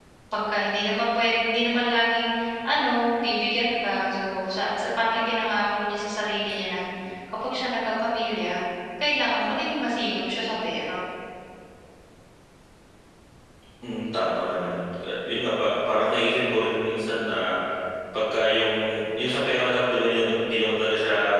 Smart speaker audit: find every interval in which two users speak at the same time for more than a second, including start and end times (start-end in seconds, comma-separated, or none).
none